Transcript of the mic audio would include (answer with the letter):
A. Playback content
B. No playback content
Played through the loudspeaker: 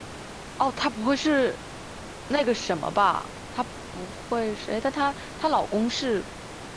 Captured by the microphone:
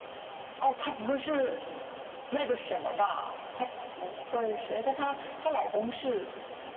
A